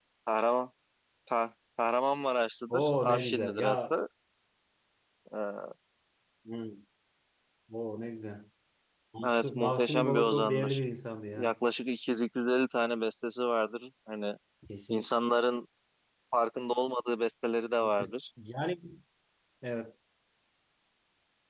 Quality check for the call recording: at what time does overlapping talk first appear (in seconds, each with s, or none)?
2.7 s